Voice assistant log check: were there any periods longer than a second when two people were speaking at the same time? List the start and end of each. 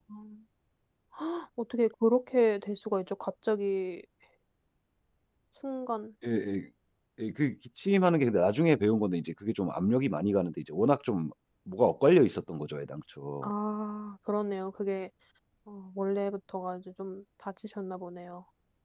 none

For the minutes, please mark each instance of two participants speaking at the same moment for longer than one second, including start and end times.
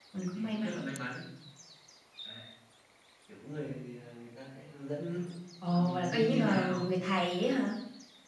5.6-6.9

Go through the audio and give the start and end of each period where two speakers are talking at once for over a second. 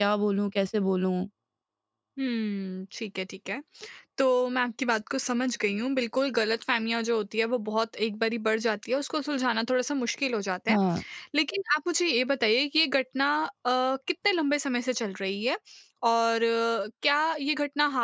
none

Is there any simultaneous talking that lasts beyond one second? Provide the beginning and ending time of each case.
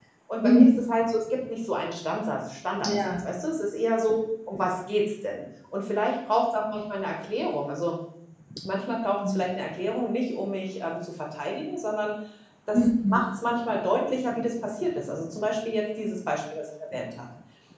none

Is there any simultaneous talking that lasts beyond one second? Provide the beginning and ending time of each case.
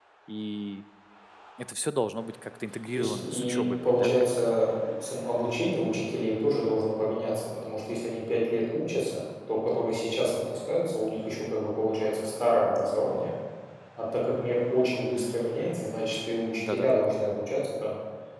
2.9-4.6

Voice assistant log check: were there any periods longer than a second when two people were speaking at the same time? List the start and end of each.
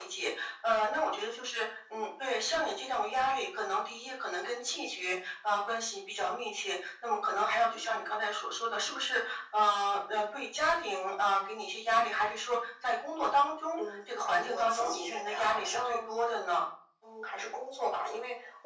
14.4-15.9

